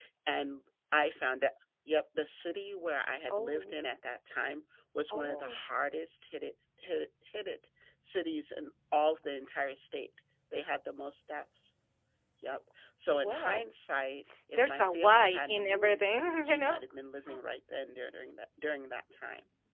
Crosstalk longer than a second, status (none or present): present